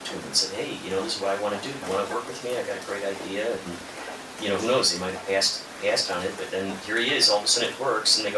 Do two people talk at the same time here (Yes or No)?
No